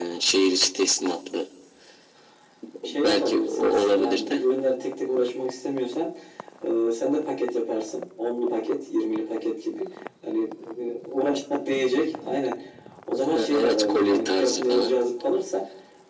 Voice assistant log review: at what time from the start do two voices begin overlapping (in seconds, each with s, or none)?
3.0 s